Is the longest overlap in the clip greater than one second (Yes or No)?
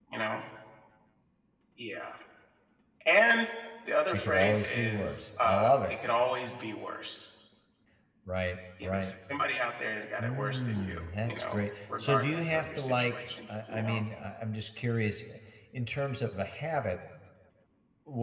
Yes